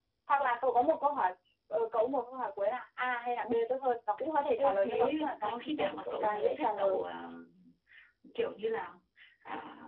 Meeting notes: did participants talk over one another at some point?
Yes, from 4.6 s

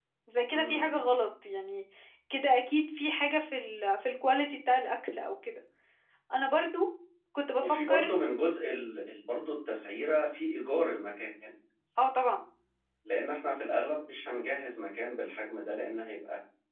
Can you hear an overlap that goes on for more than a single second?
No

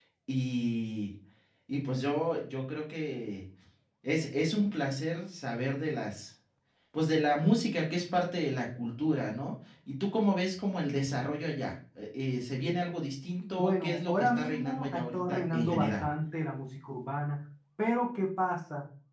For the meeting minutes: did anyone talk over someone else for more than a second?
Yes, from 13.6 s

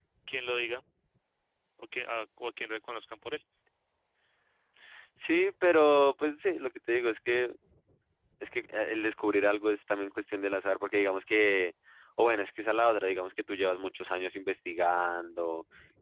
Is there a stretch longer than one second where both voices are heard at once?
No

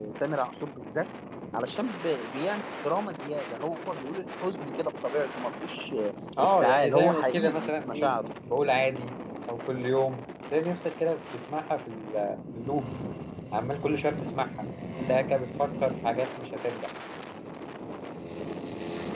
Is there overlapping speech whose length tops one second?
Yes, from 6.4 s

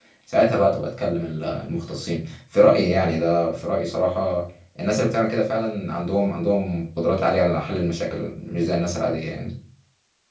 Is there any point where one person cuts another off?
No

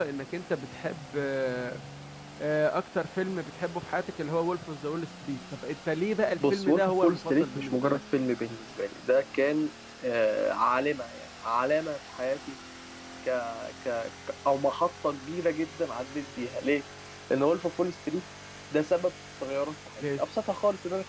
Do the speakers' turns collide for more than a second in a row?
Yes, from 6.4 s

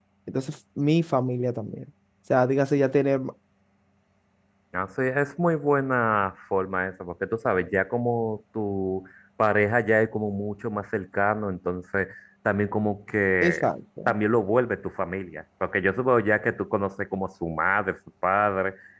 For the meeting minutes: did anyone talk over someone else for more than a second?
No

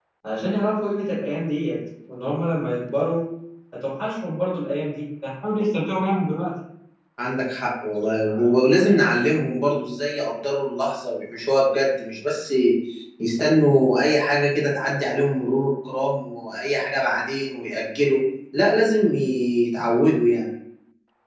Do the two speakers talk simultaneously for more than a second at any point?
No

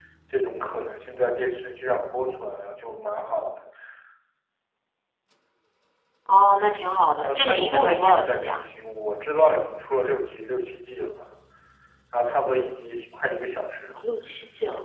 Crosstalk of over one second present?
Yes, from 7.2 s

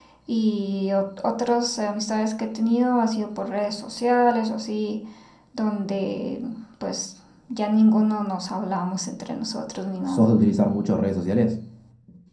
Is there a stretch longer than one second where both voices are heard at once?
No

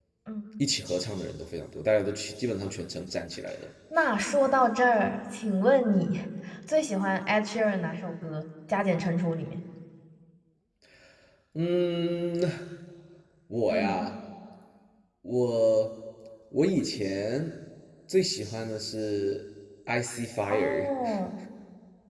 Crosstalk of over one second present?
No

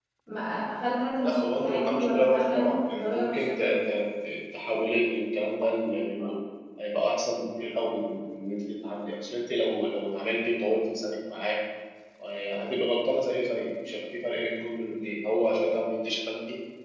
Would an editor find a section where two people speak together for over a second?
Yes, from 1.2 s

